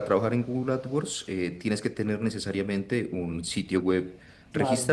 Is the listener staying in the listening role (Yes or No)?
Yes